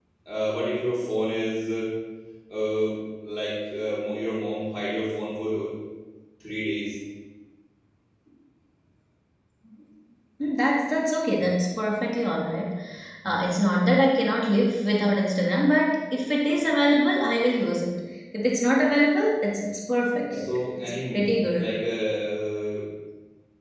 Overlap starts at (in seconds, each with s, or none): 20.3 s